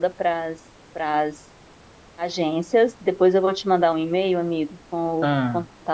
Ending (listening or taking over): listening